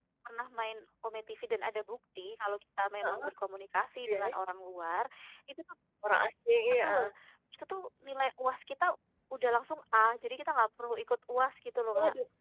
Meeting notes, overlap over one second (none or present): none